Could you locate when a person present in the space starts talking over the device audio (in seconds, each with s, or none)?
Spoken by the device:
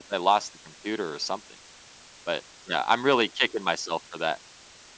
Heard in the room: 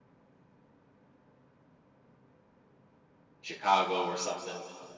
3.4 s